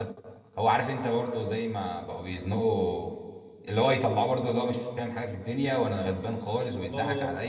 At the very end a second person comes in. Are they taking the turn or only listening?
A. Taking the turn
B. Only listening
B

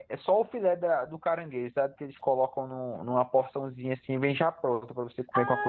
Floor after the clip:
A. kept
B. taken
B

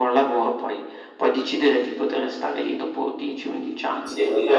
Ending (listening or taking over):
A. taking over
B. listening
A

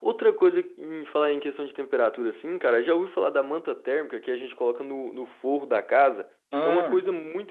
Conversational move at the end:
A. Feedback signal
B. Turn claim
A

